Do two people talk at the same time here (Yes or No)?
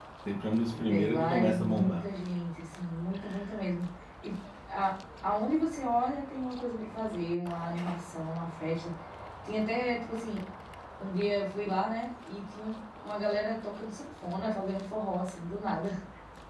Yes